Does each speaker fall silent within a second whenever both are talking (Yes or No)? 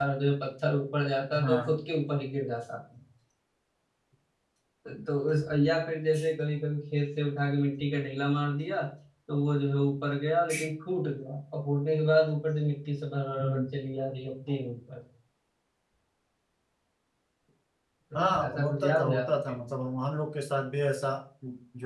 No